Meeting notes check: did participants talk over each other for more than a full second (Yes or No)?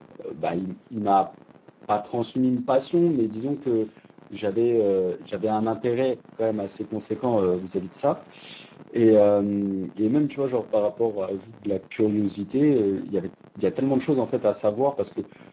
No